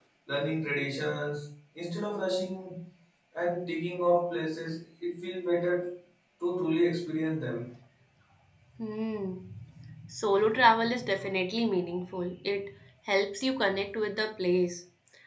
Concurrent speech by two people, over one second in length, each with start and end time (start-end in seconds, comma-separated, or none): none